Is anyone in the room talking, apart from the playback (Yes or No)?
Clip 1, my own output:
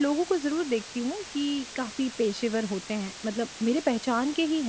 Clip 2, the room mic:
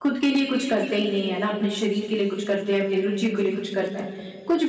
Yes